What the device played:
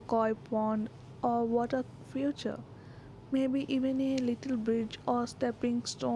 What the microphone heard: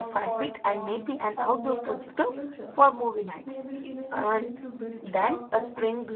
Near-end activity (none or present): present